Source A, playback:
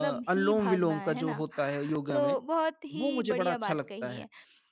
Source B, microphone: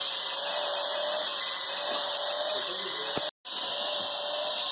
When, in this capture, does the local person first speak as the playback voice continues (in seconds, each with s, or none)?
none